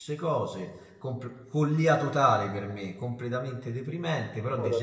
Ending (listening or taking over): listening